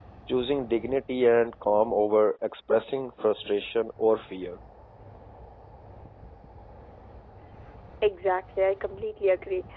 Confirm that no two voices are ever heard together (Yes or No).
Yes